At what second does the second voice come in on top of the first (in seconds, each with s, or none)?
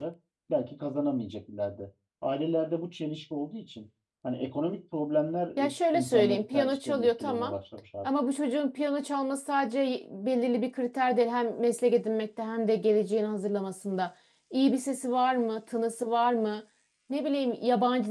5.6 s